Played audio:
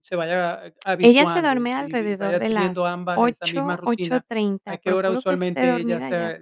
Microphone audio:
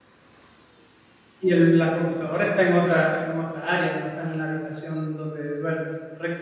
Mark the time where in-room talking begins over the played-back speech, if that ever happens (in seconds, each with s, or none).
1.4 s